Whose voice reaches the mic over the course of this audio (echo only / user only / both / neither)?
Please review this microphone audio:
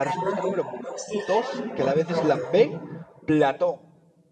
both